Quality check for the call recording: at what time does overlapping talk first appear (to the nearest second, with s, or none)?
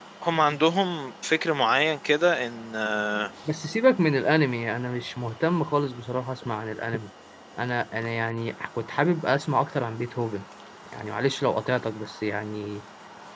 none